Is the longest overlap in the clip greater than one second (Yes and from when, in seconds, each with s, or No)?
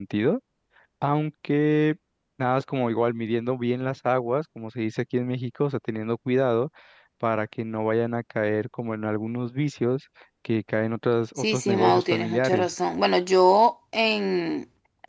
Yes, from 11.4 s